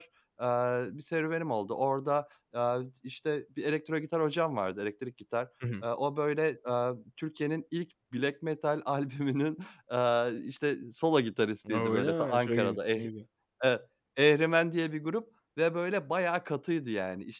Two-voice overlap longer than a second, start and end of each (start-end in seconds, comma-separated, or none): 11.7-13.0